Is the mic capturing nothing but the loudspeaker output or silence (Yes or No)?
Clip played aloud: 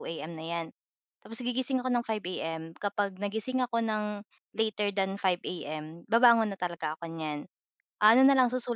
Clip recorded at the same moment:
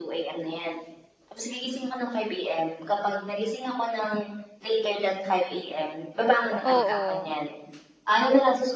No